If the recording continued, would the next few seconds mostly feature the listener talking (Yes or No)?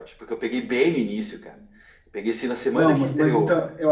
Yes